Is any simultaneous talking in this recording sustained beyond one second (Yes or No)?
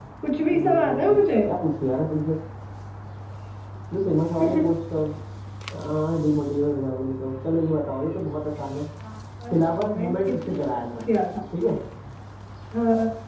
Yes